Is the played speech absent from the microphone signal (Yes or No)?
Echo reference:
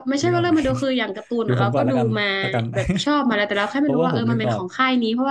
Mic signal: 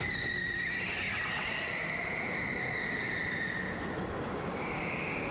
Yes